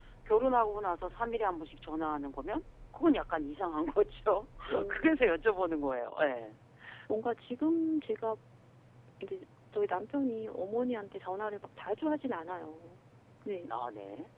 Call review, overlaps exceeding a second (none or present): none